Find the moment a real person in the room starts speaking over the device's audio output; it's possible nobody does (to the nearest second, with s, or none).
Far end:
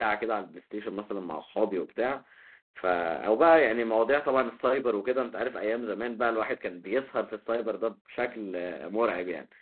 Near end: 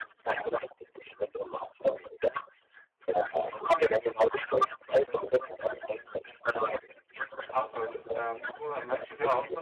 7 s